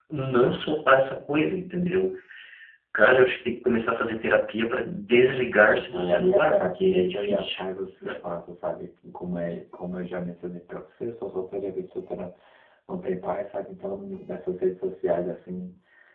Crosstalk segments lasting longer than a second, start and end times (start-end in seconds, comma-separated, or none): 4.8-7.6